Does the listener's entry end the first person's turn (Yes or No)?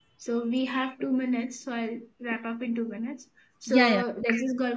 No